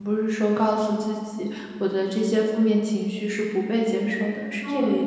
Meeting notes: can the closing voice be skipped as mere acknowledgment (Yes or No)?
No